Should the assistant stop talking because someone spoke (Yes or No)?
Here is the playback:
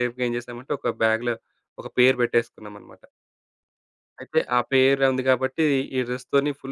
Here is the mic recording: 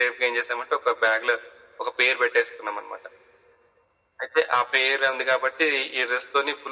No